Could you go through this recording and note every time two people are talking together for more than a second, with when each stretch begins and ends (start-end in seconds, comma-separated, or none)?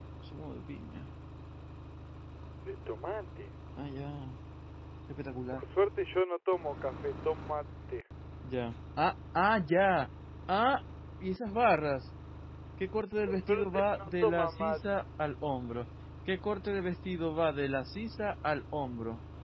13.3-14.8